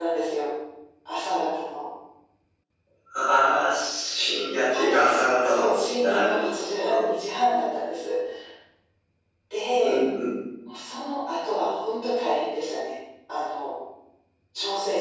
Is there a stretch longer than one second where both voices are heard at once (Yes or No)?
Yes